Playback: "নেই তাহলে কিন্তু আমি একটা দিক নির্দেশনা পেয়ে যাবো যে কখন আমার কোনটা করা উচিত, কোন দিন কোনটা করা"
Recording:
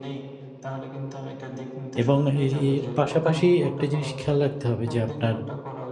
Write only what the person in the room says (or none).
এবং এ এর পাশাপাশি একটা জিনিস খেয়াল রাখতে হবে যে আপনার